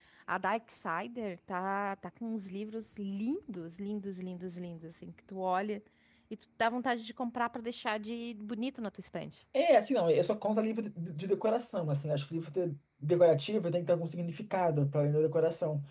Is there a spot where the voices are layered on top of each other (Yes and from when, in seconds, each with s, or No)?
No